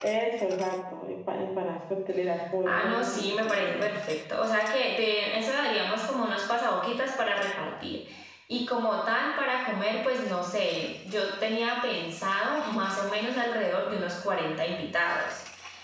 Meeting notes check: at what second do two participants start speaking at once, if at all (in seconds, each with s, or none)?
2.7 s